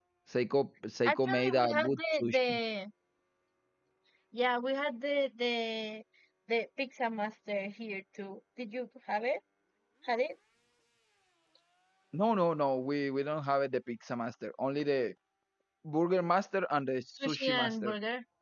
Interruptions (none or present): present